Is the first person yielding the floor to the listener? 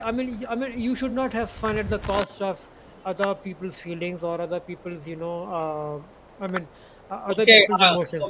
Yes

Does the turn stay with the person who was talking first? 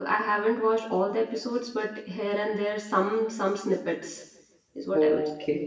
No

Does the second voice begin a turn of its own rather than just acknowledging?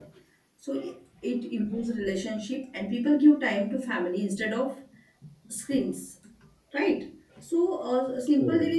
No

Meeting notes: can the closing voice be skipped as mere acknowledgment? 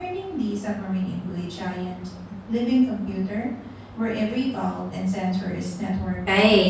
No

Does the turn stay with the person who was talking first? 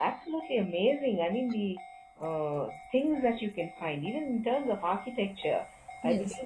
Yes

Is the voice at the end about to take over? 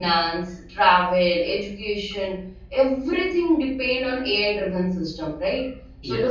Yes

